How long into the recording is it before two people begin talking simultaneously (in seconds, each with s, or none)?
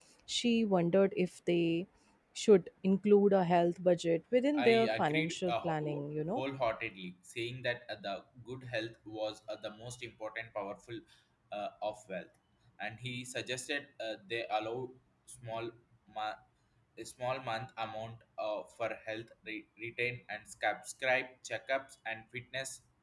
4.5 s